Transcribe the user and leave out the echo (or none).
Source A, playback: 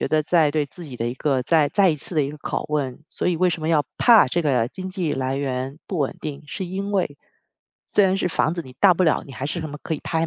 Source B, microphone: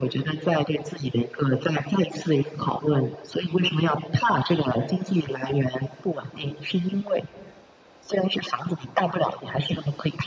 none